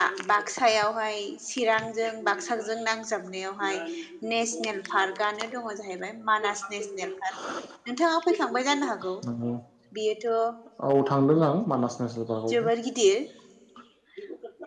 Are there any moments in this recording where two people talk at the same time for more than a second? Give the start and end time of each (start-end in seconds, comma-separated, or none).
none